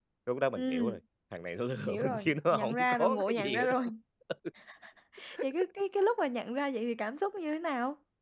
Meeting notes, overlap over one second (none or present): present